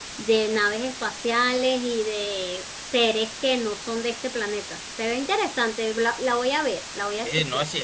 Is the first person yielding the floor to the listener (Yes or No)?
Yes